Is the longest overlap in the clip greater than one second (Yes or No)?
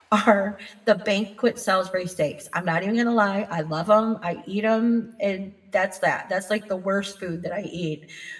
No